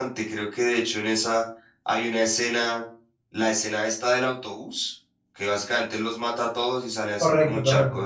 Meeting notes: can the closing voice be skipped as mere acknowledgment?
Yes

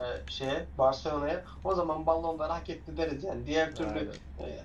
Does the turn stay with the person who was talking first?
Yes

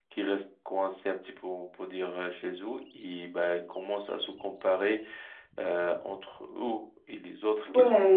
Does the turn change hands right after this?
Yes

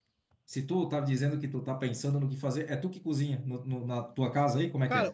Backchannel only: No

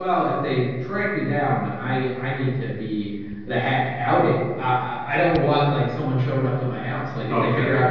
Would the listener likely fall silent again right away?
Yes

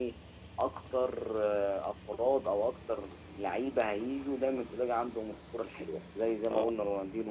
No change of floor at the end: Yes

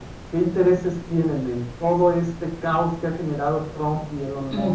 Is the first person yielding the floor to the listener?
Yes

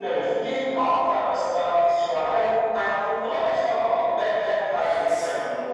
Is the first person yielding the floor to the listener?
No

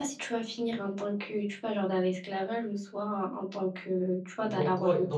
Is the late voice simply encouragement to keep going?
No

